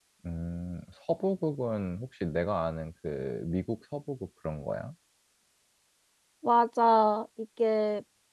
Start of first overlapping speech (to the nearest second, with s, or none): none